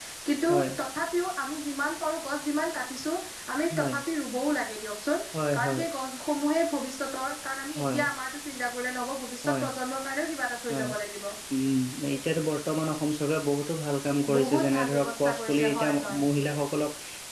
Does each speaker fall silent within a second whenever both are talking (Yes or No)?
No